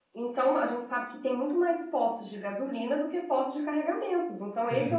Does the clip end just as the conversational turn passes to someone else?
No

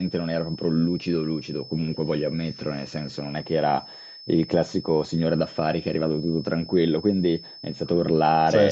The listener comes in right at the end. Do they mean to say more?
No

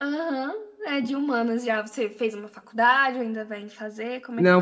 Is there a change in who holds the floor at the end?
Yes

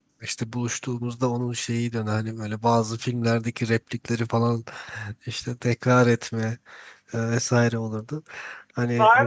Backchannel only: No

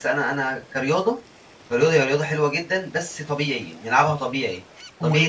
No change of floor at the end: Yes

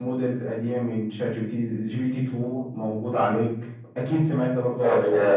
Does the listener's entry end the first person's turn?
Yes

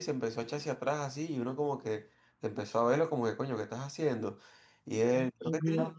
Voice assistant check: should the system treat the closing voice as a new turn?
No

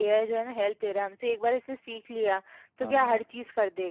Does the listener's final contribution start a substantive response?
No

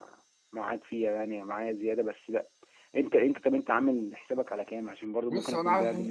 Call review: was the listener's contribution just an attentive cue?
No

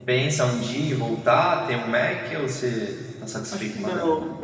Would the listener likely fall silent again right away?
No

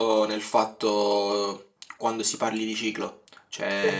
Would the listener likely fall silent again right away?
Yes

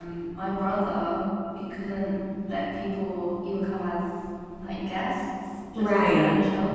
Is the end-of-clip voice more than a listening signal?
No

